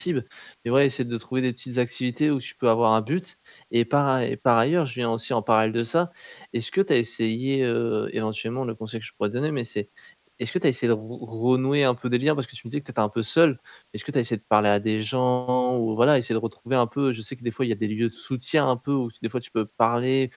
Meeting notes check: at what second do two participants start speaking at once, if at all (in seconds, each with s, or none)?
none